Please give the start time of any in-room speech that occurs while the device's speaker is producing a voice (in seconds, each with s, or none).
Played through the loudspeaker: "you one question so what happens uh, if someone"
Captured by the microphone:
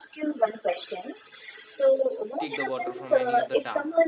2.4 s